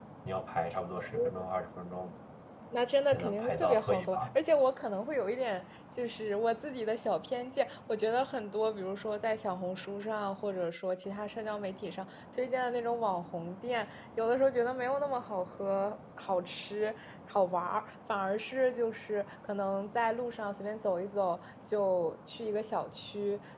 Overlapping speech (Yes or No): Yes